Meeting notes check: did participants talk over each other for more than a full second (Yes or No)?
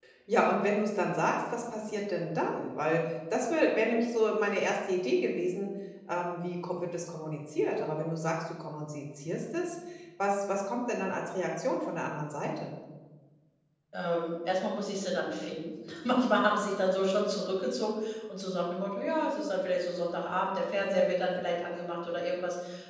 No